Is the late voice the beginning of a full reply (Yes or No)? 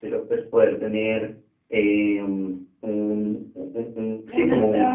Yes